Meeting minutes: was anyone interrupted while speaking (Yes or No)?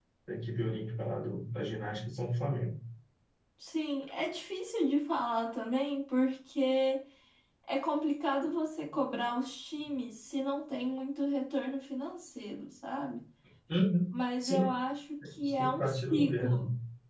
Yes